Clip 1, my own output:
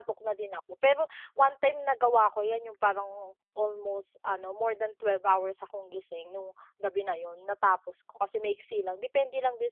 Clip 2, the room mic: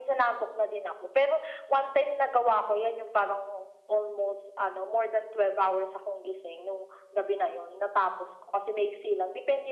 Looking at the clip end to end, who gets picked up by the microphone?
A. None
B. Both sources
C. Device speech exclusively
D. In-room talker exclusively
C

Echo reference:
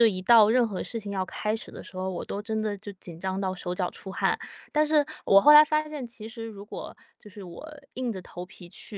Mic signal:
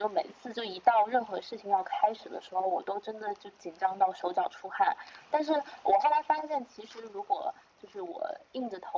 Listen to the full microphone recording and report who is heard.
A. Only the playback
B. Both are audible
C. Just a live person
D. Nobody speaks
A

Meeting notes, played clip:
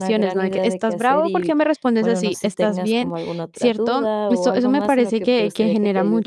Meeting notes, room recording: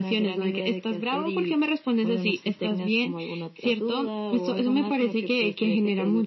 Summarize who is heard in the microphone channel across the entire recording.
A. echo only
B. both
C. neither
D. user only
A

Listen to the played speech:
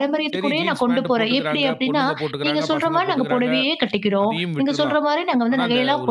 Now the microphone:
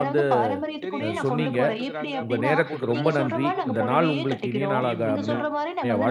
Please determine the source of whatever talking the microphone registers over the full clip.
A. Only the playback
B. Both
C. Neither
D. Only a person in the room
B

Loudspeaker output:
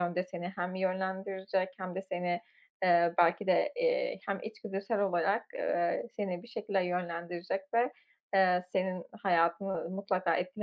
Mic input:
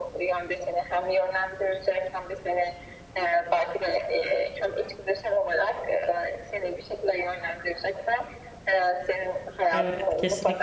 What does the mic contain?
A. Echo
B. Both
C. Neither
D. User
B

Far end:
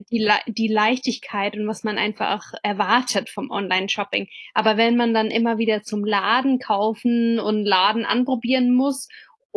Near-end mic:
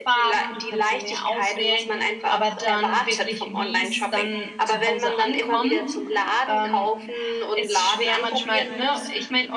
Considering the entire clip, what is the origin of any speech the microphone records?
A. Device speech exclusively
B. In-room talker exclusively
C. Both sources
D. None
C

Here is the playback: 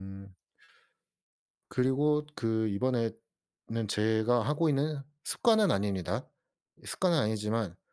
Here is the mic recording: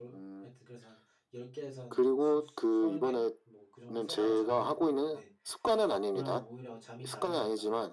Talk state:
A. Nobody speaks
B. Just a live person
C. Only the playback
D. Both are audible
D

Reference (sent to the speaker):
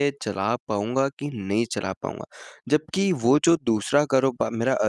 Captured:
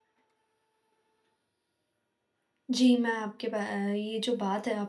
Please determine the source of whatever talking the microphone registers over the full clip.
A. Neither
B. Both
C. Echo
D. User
D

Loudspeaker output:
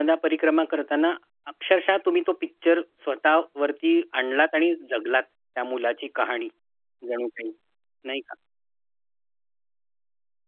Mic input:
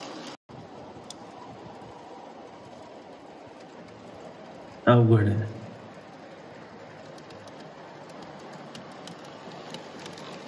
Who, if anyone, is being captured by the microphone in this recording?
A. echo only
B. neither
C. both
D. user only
D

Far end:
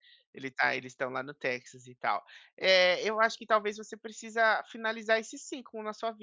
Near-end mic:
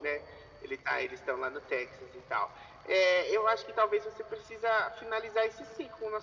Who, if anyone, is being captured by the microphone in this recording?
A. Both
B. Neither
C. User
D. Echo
D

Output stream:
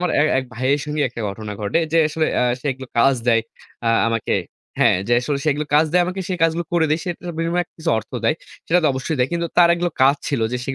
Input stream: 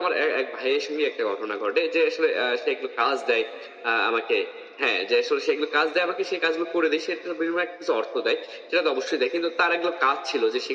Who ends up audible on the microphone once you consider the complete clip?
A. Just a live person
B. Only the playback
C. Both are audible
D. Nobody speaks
B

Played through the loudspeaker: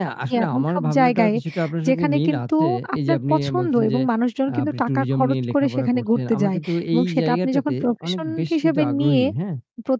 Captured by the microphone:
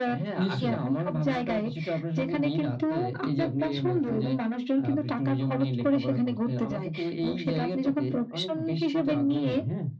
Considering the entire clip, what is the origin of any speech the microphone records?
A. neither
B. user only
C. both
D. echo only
C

